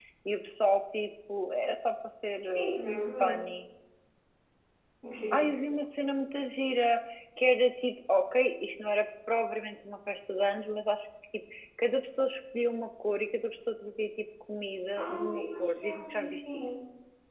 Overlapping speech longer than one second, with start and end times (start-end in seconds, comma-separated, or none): 15.0-16.6